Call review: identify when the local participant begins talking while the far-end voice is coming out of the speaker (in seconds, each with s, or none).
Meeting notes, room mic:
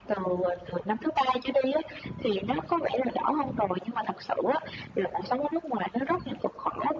none